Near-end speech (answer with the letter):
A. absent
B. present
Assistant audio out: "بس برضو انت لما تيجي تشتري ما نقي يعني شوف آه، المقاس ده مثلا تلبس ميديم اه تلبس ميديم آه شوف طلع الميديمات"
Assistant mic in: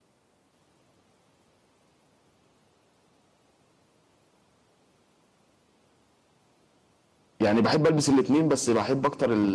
B